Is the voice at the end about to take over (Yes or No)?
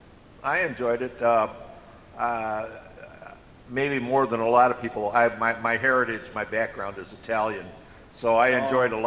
No